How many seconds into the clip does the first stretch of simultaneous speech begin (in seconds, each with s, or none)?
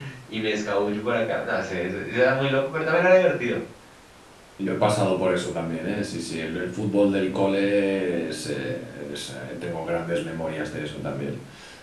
none